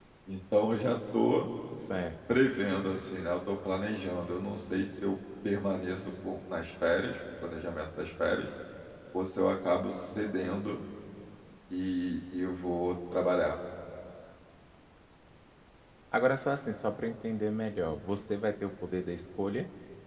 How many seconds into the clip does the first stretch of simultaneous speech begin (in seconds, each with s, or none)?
none